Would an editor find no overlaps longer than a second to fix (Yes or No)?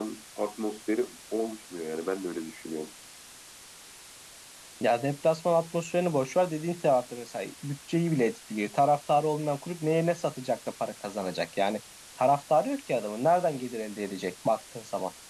Yes